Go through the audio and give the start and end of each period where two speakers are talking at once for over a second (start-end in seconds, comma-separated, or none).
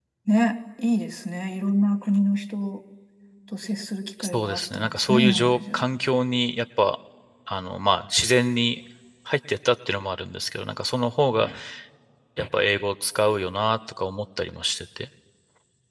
4.2-5.9